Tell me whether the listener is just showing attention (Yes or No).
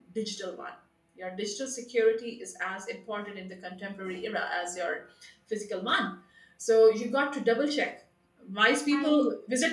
Yes